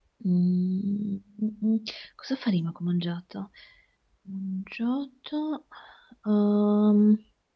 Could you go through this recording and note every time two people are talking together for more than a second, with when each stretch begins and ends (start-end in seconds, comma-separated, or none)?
none